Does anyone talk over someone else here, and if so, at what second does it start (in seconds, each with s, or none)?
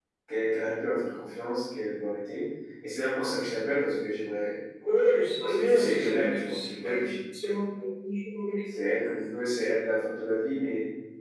5.5 s